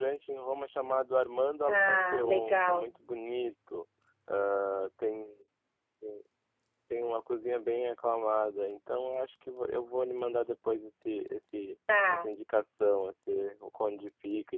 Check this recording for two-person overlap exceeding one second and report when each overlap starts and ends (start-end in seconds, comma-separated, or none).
1.7-2.9